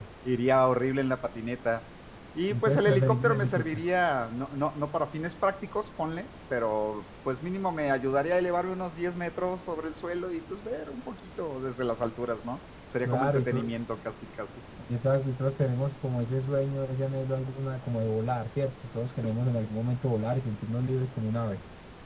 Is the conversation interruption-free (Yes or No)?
No